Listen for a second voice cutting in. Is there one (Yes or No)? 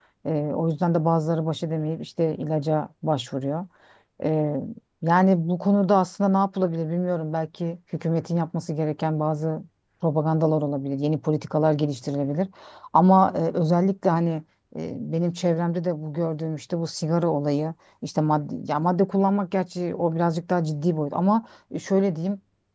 No